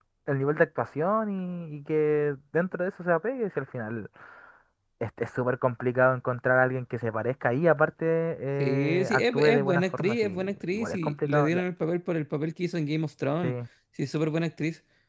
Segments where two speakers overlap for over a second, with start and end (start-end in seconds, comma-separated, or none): 8.6-11.6